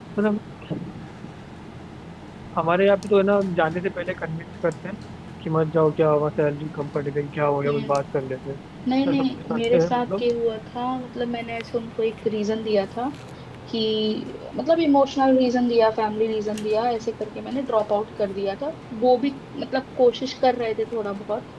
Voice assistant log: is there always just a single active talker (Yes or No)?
No